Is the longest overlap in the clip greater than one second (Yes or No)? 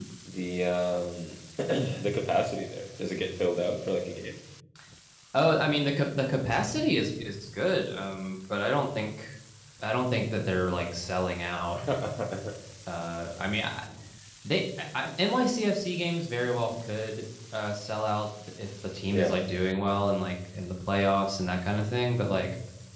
No